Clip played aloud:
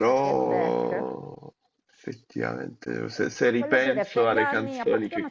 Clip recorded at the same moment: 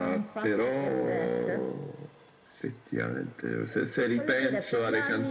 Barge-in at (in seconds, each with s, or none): none